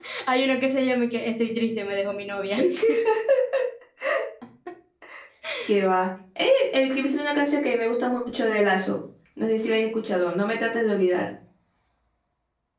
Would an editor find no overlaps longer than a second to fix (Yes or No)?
Yes